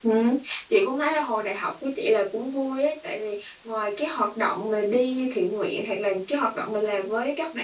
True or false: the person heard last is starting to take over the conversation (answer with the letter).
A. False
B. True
A